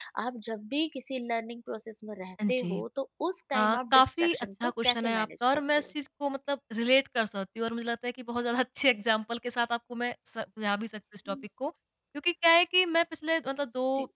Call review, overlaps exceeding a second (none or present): present